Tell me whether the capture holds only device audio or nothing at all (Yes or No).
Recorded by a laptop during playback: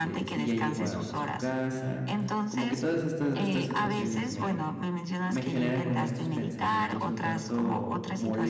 No